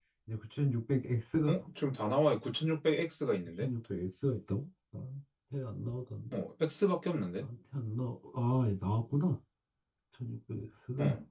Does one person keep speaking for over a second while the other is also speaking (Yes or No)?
No